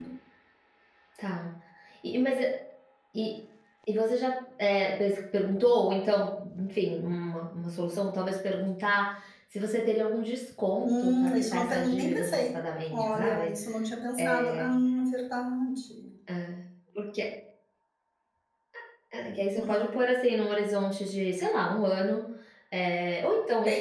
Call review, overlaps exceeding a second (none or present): present